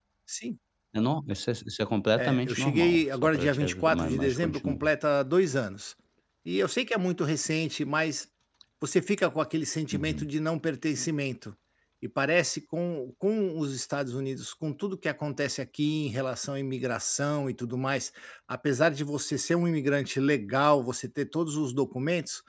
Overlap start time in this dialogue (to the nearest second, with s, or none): 2 s